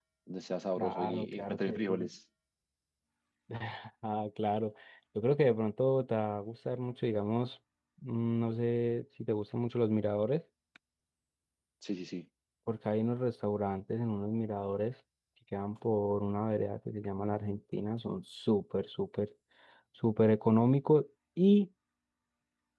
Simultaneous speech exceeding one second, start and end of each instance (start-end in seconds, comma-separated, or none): 0.8-2.1